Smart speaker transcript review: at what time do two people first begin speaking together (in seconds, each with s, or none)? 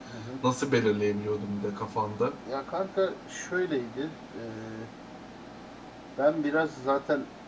none